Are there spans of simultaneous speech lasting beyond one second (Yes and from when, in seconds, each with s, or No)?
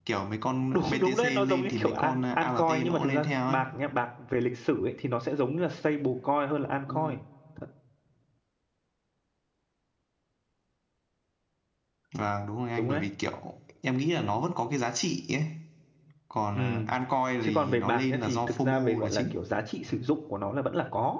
Yes, from 0.7 s